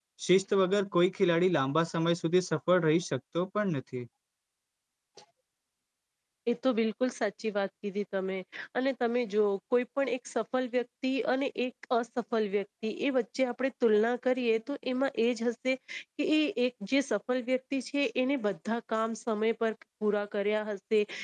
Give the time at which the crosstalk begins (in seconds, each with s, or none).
none